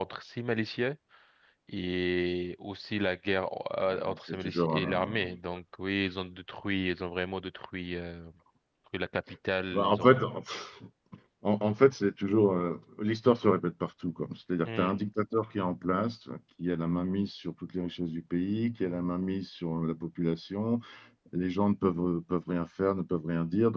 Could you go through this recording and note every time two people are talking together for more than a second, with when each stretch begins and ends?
3.8-5.1

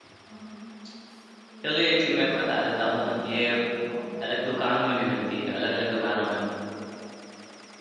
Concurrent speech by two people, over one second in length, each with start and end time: 1.6-3.5

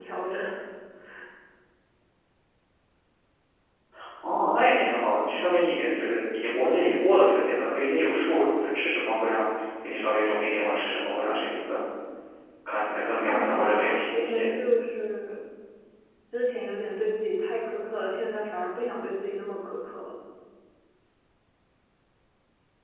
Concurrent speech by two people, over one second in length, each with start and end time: 13.2-14.5

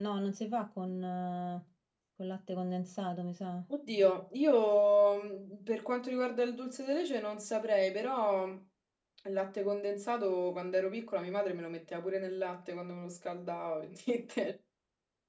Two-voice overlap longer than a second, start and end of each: none

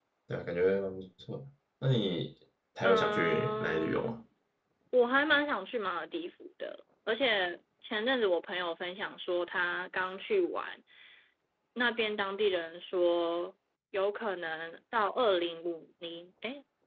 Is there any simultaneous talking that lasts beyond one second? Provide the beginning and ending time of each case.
2.8-4.2

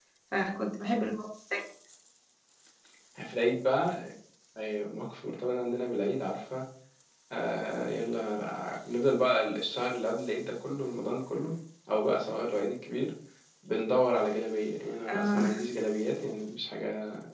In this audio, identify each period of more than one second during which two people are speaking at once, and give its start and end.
none

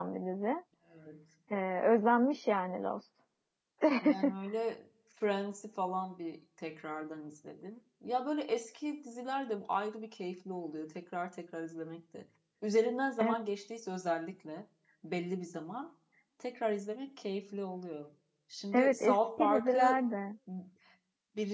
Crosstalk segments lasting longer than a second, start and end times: 18.7-20.0

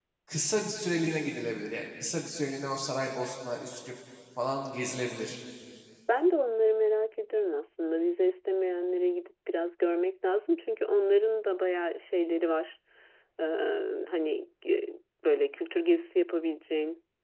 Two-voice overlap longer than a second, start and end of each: none

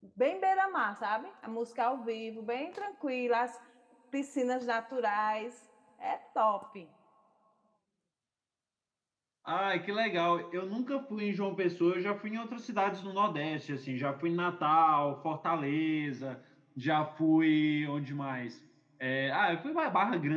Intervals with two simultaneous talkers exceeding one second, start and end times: none

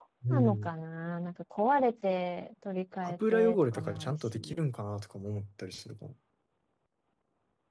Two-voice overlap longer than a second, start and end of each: 3.0-4.4

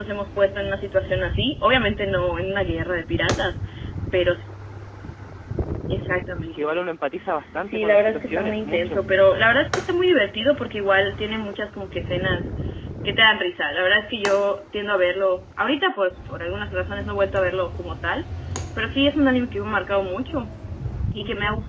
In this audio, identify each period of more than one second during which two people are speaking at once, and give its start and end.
7.7-9.0

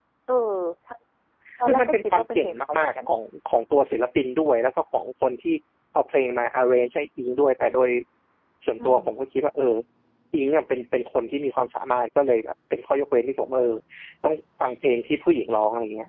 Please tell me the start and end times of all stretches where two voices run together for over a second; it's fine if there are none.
1.6-2.9

